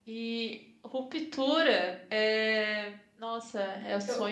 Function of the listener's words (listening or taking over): listening